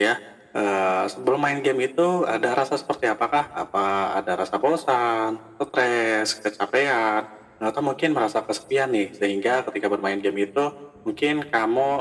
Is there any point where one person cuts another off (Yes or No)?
No